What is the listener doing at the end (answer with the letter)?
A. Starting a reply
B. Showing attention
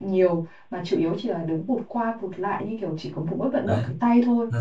A